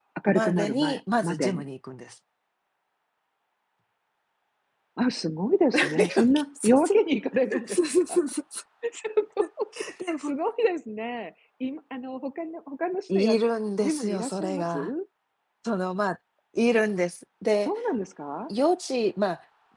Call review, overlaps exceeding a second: present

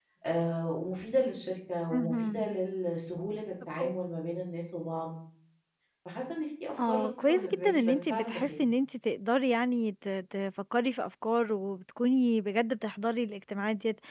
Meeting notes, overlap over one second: present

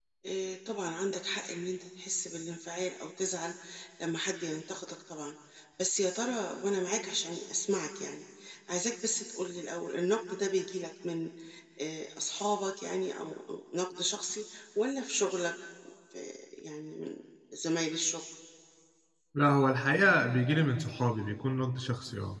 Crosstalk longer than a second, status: none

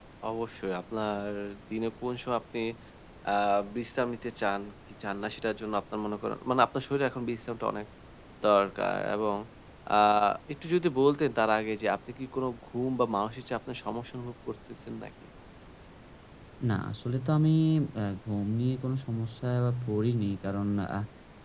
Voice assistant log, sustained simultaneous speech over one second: none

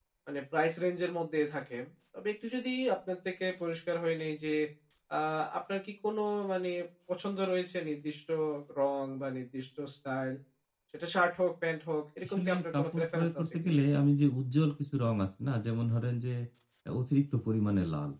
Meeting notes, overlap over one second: present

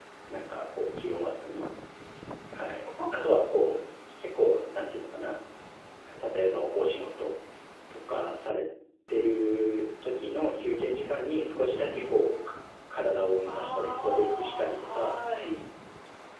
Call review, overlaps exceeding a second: present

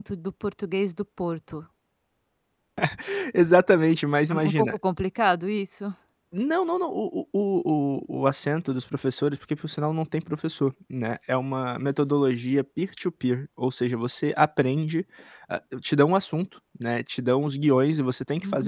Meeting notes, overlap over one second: none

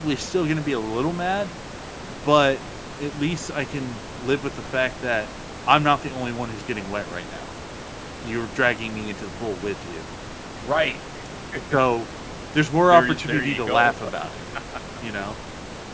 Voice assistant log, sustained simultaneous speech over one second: present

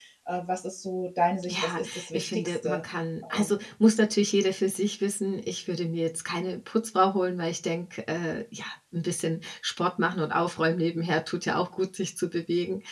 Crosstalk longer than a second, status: present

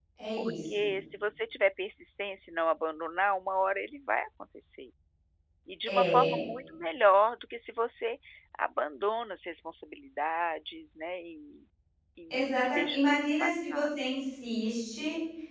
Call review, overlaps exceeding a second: present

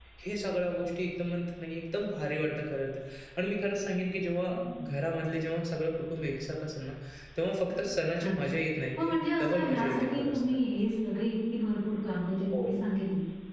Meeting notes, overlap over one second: present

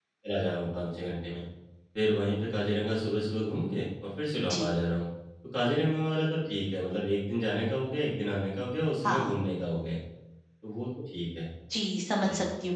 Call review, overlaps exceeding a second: none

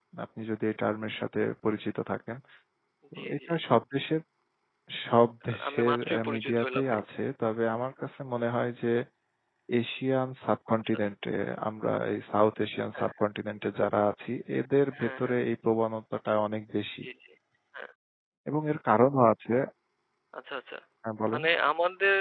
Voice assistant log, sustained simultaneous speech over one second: present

